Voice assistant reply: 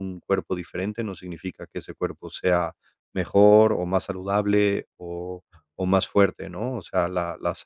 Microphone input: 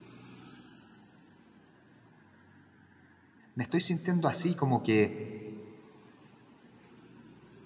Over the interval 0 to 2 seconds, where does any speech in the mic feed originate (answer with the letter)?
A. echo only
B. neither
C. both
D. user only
B